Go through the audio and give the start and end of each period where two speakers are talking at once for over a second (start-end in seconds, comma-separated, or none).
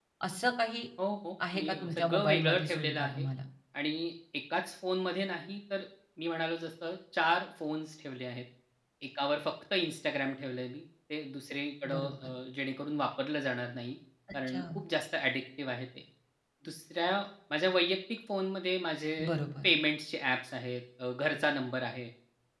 1.5-3.3